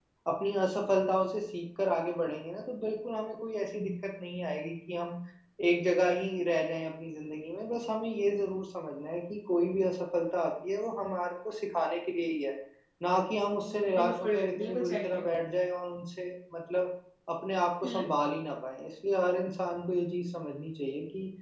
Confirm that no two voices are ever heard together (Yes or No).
No